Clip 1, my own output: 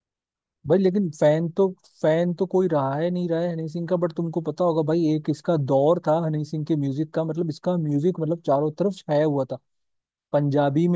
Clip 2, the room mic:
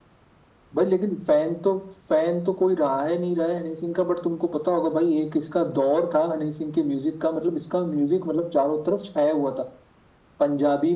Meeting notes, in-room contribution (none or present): none